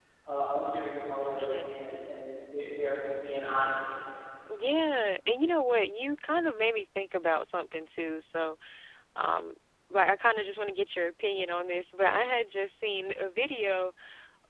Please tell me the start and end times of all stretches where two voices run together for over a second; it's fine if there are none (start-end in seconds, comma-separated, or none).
none